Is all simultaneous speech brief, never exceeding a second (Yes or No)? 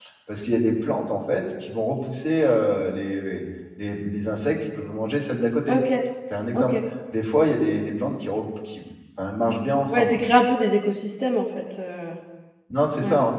Yes